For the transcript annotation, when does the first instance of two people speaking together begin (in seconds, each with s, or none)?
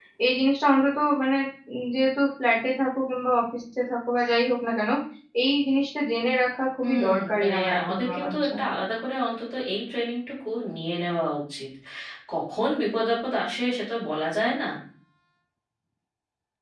6.8 s